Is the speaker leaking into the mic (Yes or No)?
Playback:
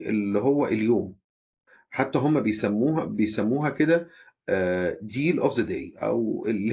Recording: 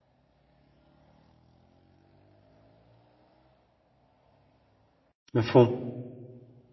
No